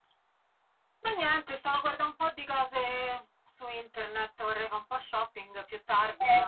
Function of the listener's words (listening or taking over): taking over